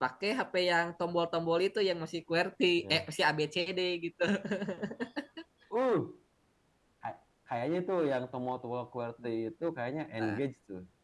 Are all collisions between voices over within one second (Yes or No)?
Yes